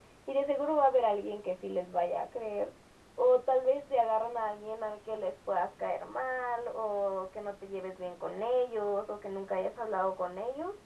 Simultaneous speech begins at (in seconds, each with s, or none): none